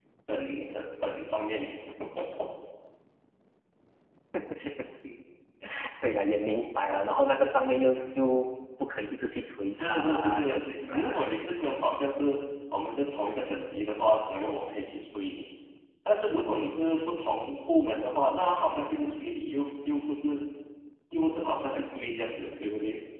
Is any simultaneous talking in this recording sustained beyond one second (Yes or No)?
Yes